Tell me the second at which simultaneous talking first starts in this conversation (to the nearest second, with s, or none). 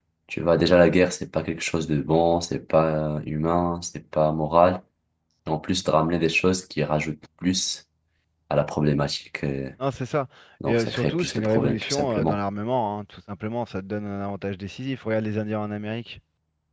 11 s